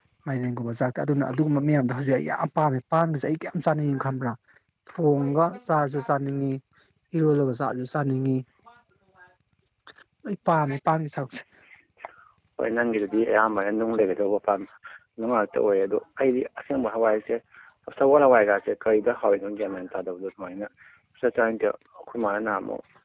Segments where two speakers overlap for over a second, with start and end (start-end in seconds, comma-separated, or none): none